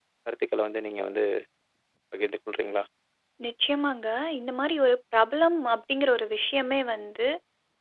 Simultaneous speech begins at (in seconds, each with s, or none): none